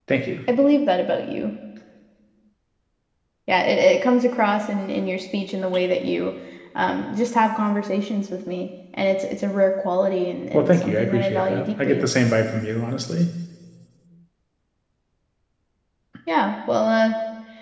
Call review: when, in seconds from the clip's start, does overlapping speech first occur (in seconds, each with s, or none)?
10.5 s